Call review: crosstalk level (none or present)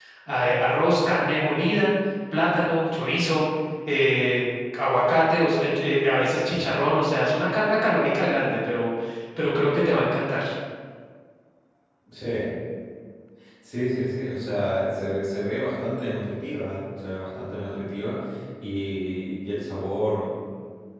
none